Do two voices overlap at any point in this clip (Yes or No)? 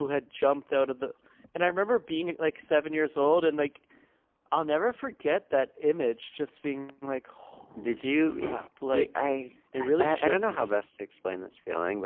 Yes